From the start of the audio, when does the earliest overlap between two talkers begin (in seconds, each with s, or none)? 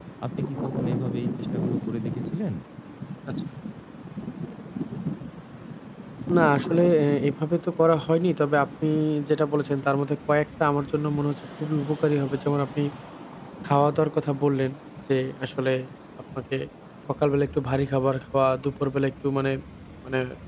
none